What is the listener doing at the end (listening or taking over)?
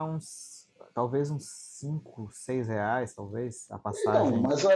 taking over